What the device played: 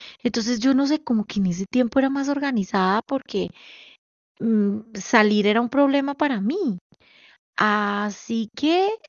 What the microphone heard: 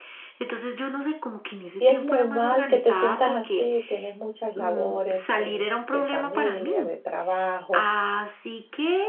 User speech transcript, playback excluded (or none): y es normal que te sientas así, tienes muchas labores eh, de familia, de trabajo,